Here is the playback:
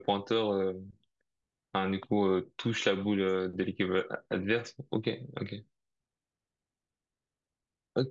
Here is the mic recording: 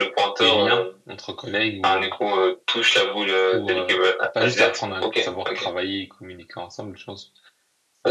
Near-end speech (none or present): present